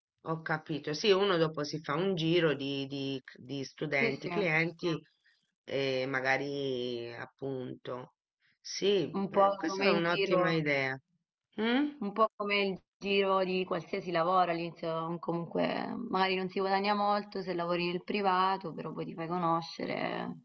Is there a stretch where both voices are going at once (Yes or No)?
Yes